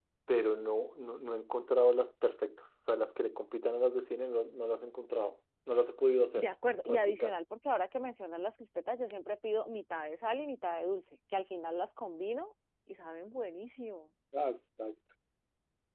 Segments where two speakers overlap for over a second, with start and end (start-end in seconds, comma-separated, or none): none